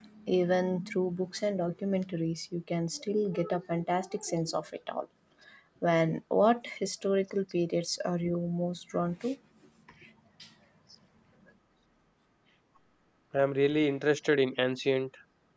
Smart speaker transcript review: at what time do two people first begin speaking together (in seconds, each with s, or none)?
none